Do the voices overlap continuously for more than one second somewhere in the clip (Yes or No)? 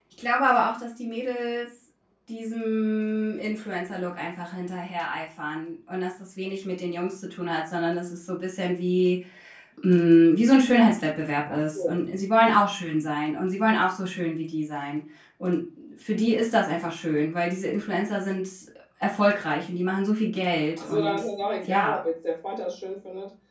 No